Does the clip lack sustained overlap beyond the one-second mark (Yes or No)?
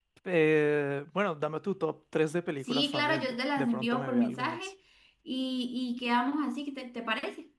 No